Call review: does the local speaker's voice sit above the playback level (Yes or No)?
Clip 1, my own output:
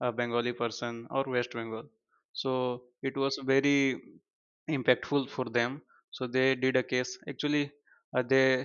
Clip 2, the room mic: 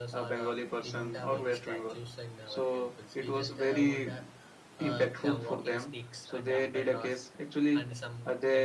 No